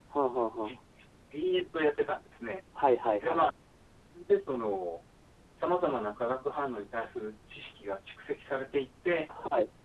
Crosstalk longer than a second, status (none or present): none